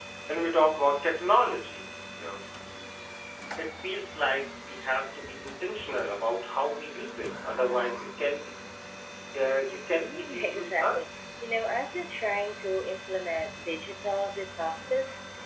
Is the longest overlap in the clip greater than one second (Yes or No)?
Yes